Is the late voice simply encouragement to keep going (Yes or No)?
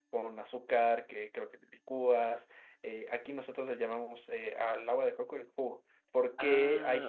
Yes